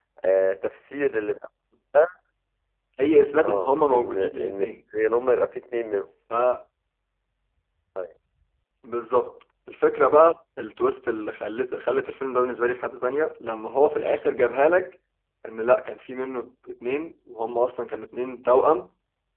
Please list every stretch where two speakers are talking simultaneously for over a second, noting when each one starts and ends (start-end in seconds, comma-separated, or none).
3.4-4.7